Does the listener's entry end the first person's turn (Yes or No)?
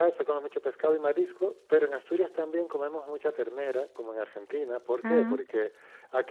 No